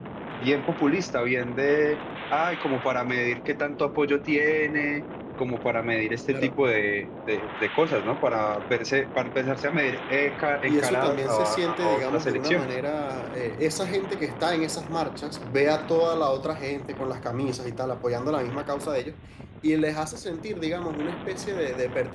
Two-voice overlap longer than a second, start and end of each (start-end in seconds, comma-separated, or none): 10.7-12.7